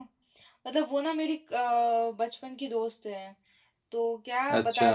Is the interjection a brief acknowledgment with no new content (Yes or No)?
Yes